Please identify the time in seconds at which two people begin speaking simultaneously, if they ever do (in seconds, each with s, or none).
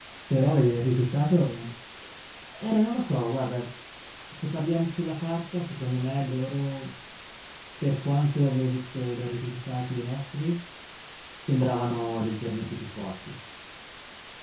none